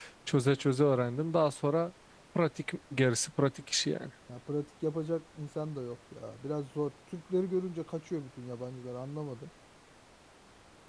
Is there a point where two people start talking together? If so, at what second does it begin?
none

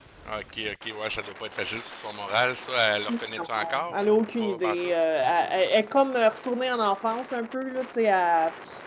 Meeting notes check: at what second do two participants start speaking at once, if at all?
3.4 s

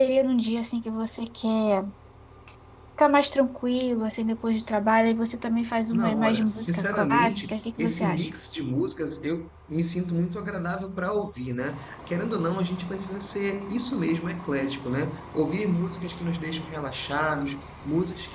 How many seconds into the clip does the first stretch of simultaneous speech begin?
5.9 s

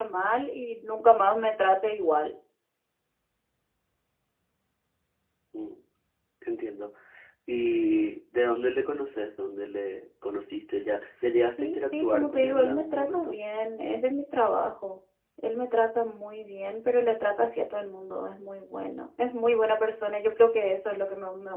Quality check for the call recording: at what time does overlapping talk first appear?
11.5 s

